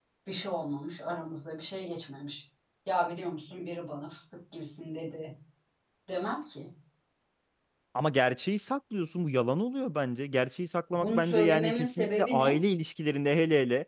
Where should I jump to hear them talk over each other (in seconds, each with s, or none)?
10.9 s